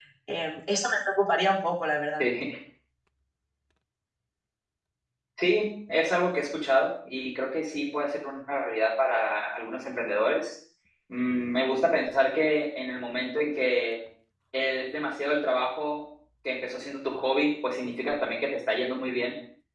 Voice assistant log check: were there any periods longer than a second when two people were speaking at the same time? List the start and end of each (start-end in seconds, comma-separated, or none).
none